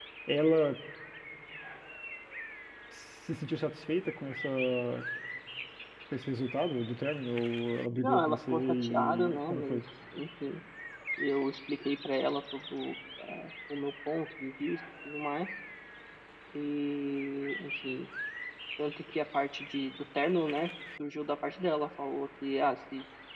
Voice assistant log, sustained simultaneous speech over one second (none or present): present